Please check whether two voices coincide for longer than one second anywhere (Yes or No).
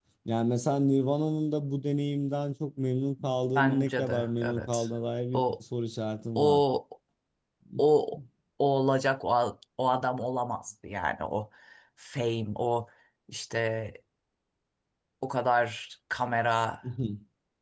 Yes